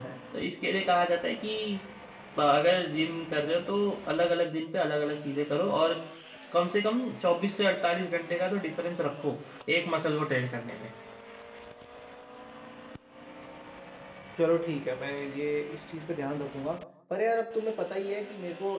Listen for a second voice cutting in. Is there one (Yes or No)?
No